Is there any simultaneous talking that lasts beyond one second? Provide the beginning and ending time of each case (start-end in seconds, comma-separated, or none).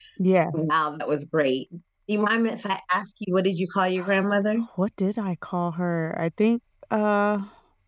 none